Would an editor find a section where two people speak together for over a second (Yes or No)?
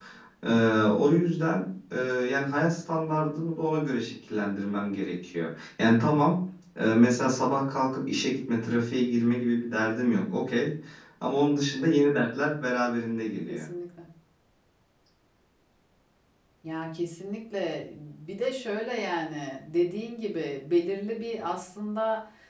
No